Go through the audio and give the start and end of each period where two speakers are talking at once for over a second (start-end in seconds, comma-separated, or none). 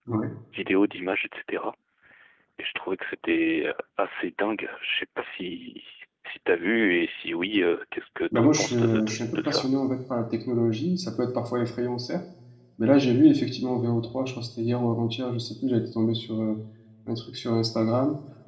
8.3-9.7